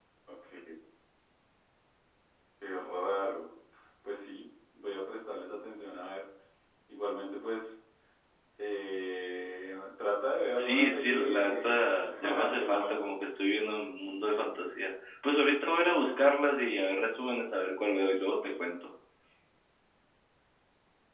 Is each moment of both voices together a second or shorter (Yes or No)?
No